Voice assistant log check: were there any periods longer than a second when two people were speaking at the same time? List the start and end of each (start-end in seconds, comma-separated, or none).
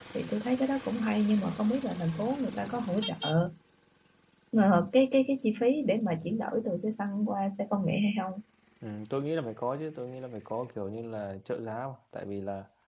none